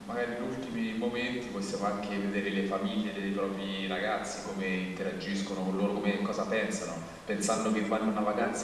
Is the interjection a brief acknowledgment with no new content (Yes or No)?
Yes